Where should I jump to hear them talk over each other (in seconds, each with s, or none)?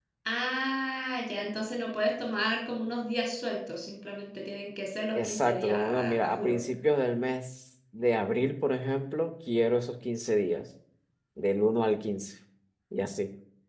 5.2 s